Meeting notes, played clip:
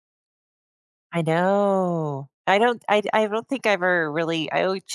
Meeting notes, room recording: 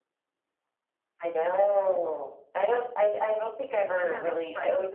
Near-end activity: present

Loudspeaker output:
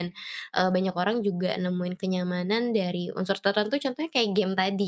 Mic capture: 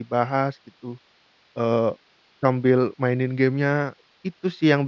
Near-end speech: present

